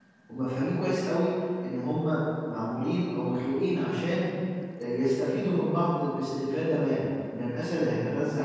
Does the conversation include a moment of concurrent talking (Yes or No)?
No